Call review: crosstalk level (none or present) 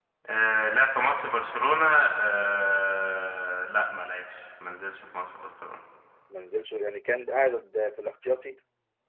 none